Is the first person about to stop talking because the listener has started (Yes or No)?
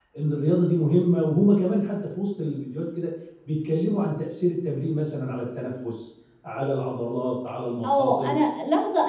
Yes